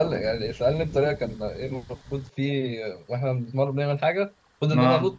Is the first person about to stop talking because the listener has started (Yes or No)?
No